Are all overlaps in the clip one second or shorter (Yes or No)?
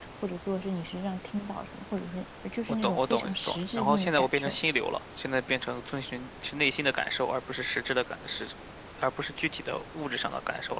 No